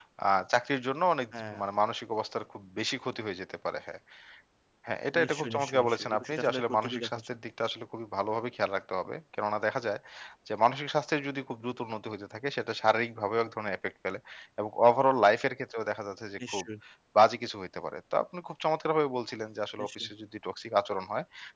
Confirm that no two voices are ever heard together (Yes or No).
No